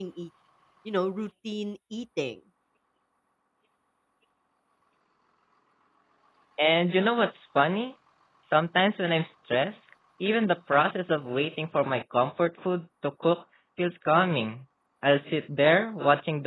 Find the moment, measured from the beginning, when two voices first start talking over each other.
none

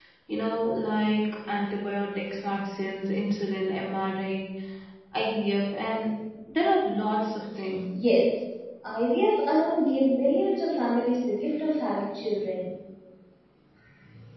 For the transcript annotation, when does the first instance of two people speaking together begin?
none

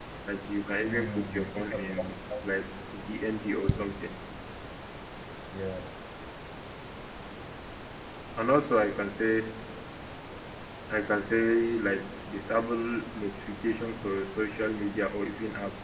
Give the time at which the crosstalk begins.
0.8 s

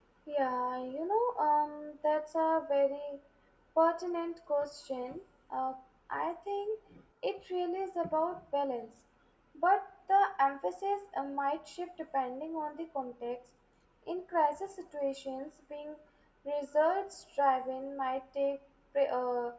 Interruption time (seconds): none

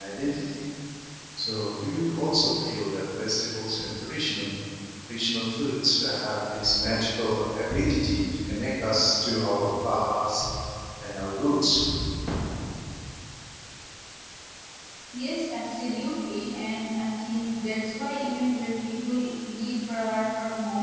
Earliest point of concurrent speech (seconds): none

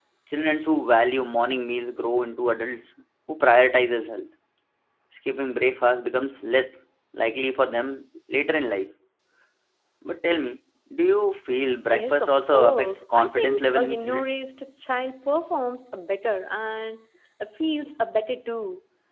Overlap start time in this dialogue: 11.9 s

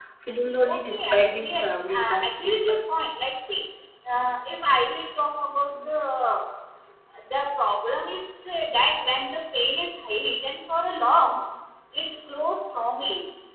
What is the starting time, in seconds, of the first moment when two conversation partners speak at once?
0.7 s

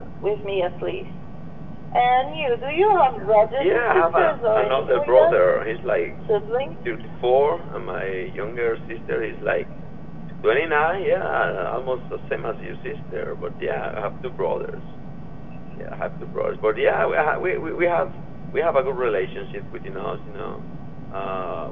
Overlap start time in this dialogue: 3.6 s

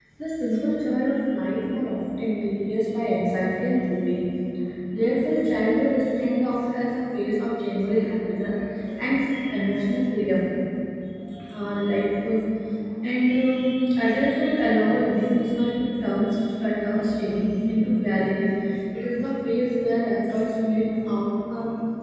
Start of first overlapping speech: none

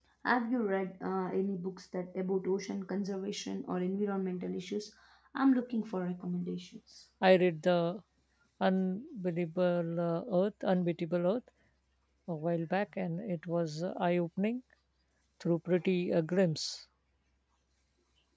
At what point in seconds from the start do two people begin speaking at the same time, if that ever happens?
none

